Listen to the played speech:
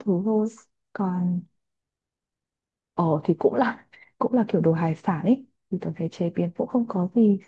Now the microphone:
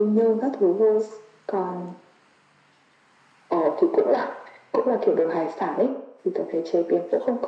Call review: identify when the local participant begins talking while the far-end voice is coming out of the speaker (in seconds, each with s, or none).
none